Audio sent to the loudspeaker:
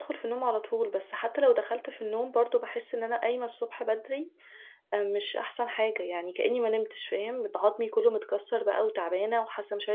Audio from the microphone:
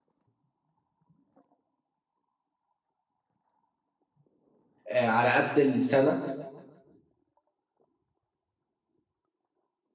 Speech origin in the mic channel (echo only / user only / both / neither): user only